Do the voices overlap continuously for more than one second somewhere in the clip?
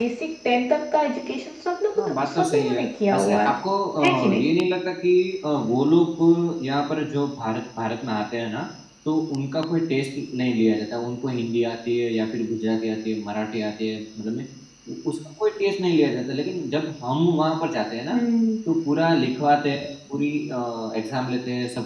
Yes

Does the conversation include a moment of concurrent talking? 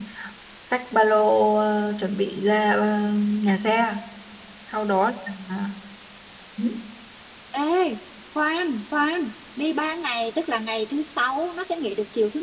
No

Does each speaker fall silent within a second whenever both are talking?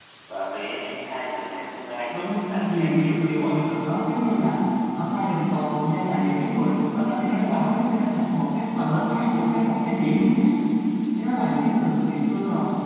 No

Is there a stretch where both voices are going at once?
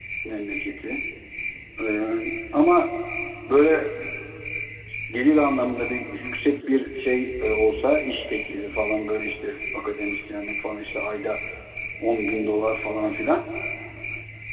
No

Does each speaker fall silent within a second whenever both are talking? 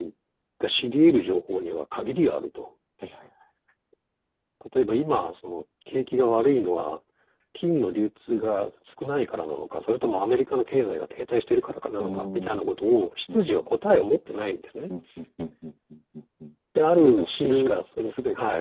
No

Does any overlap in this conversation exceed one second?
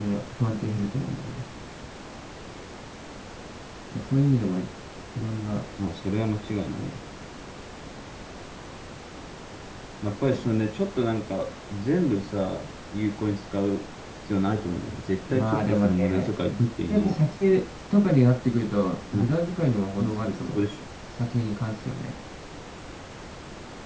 Yes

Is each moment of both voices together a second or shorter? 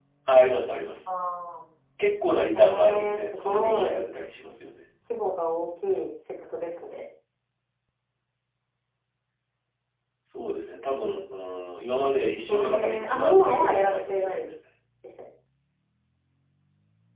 No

